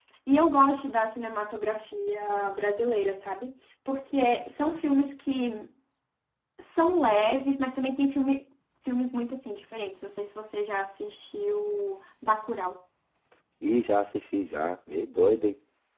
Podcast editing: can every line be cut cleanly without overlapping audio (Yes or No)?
Yes